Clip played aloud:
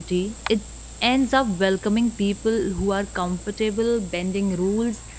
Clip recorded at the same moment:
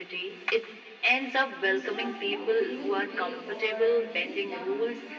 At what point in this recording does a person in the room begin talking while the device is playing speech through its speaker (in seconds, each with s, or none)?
1.6 s